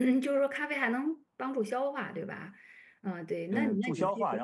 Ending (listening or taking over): taking over